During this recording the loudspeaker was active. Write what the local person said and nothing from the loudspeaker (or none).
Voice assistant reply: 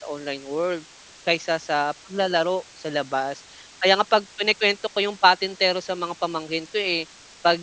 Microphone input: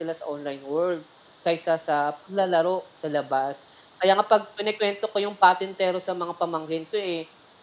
none